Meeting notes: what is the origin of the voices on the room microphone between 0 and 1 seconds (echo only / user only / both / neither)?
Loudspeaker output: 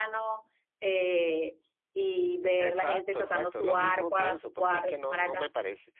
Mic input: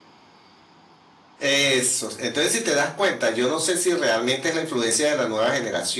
neither